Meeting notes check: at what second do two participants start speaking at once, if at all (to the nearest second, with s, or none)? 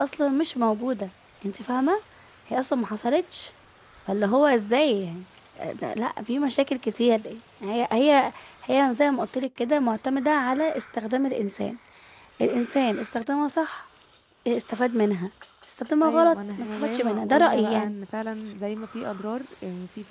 16 s